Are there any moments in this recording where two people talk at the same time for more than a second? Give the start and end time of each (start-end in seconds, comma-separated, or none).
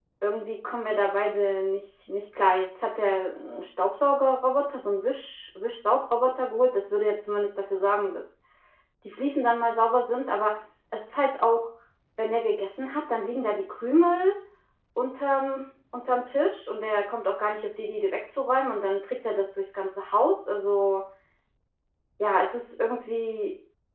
none